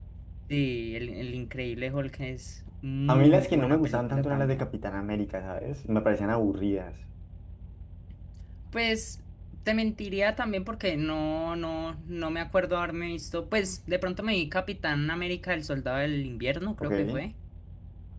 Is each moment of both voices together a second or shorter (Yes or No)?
No